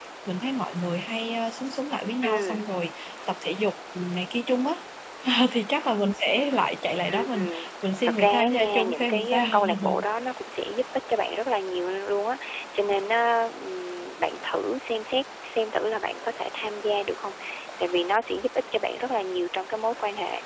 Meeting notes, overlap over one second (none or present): present